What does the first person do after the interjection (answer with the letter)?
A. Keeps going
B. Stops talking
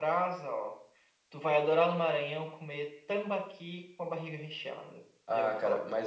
B